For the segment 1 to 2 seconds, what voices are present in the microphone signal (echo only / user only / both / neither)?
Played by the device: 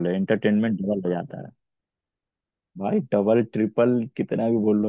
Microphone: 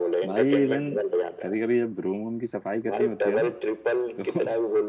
both